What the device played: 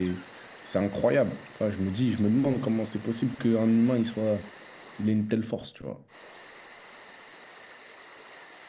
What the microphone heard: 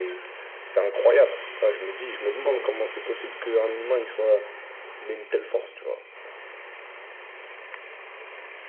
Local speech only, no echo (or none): none